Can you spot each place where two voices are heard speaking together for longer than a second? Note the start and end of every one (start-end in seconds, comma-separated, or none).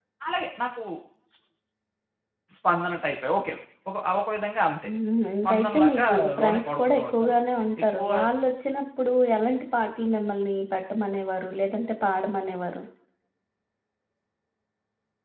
5.4-7.4